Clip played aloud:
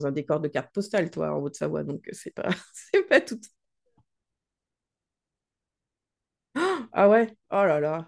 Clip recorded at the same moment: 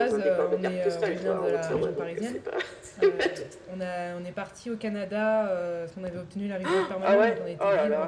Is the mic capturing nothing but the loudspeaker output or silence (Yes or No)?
No